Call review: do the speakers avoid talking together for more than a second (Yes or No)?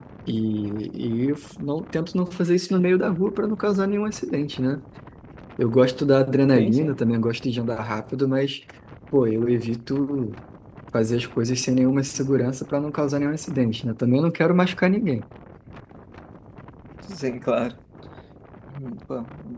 Yes